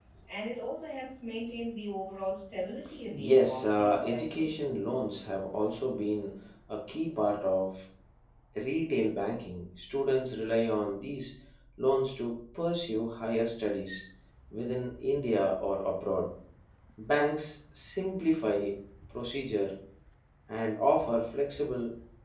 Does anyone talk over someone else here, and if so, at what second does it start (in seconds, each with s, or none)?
3.2 s